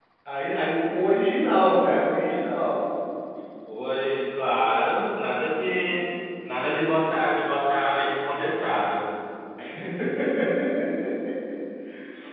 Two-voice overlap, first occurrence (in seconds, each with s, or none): none